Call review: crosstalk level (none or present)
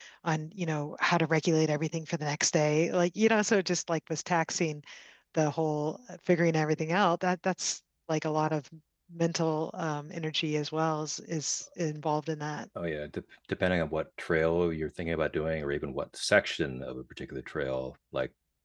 none